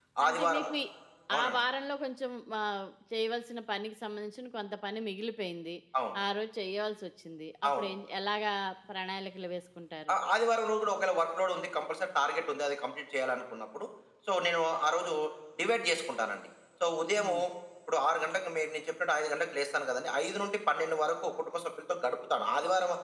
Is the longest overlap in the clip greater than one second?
No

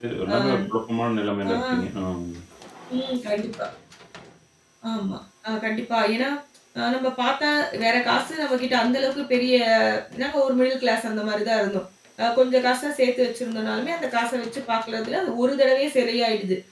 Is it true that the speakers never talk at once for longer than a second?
Yes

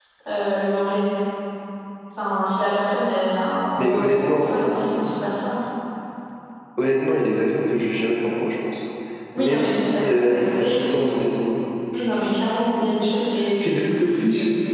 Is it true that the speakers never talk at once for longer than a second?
No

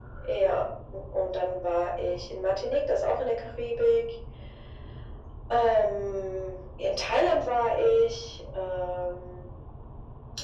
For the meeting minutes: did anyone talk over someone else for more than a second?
No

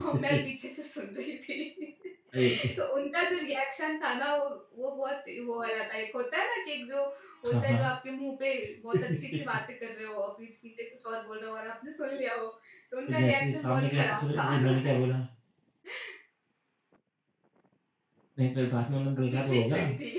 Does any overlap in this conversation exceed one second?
Yes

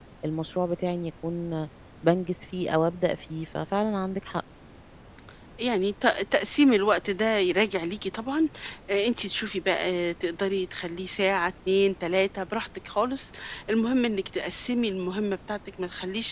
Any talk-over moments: No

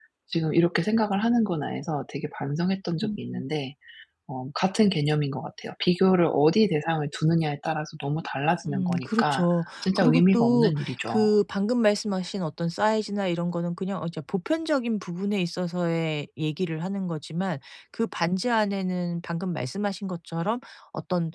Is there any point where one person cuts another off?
Yes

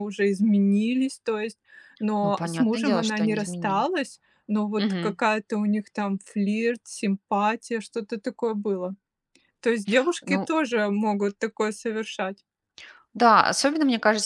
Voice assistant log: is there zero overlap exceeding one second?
No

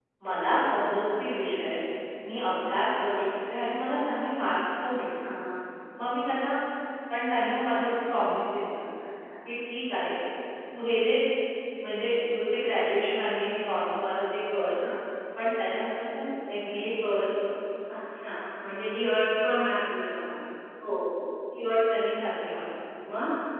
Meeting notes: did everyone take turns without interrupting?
Yes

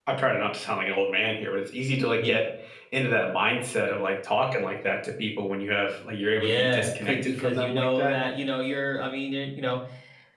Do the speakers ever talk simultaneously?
Yes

